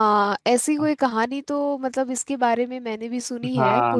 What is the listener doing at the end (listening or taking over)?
taking over